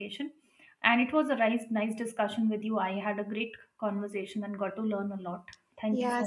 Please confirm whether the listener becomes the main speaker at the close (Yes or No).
Yes